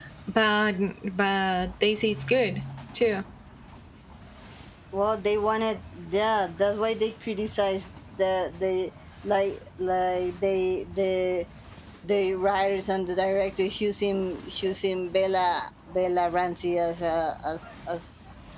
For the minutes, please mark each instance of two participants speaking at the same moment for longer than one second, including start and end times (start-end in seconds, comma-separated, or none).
none